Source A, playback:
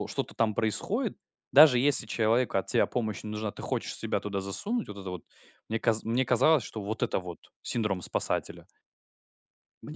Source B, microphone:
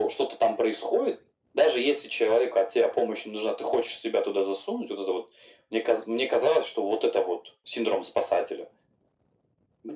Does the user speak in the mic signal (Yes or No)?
No